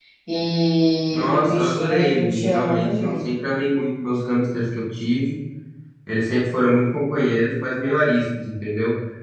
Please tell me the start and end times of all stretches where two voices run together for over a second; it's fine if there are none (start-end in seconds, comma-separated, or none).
1.1-3.3